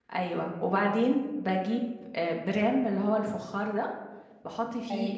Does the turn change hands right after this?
No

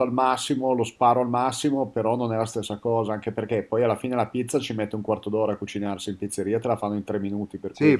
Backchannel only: No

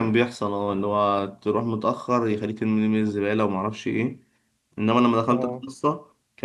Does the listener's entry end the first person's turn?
No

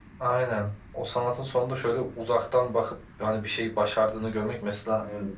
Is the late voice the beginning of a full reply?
No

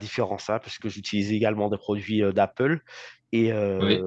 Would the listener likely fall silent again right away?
Yes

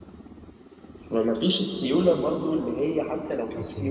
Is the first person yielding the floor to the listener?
No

